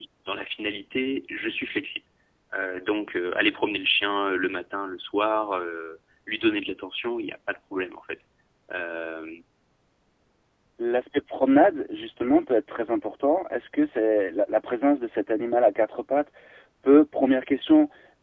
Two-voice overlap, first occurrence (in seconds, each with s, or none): none